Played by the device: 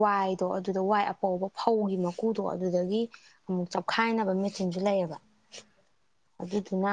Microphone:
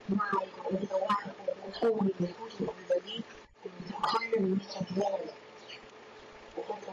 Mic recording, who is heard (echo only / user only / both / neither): echo only